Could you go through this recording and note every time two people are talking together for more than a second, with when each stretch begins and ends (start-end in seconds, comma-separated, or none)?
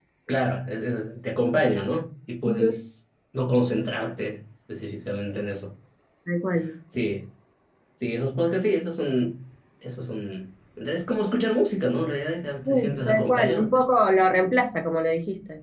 12.6-13.8